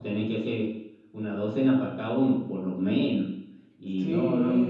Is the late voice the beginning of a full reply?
Yes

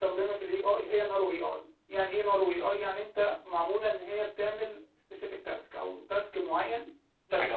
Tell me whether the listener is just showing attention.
No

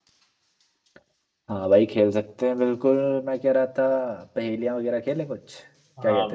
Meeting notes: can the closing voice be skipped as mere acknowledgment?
No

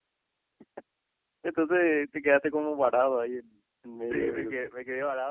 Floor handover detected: Yes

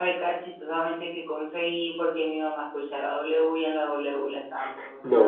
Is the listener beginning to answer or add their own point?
Yes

